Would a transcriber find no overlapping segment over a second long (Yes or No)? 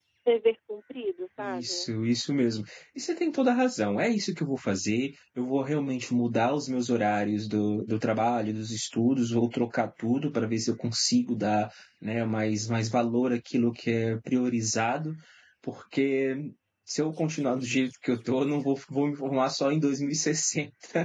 Yes